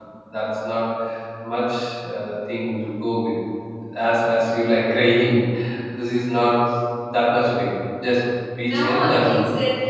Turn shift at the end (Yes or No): Yes